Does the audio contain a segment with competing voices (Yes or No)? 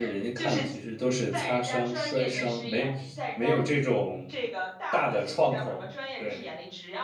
Yes